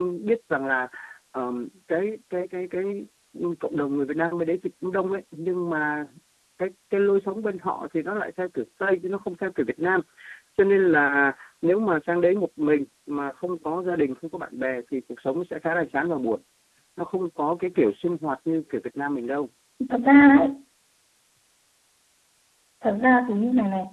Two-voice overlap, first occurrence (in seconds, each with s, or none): none